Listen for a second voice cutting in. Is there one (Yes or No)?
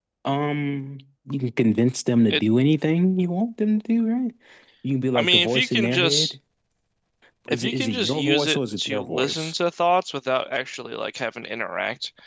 Yes